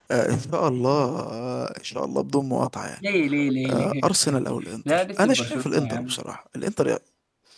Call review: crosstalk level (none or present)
present